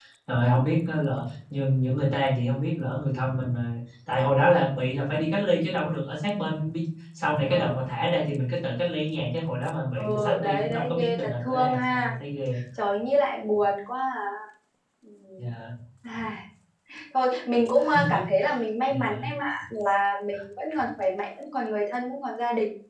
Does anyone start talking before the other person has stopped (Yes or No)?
Yes